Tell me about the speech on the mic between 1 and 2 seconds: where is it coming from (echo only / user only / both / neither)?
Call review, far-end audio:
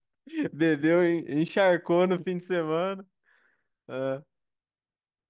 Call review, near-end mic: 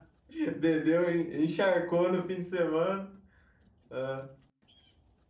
echo only